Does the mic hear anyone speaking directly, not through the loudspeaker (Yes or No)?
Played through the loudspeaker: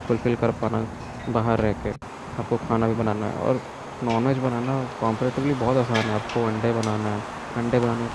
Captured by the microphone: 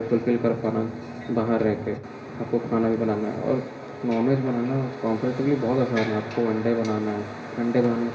No